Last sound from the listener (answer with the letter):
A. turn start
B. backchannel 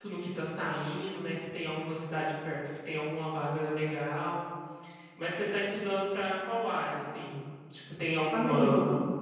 B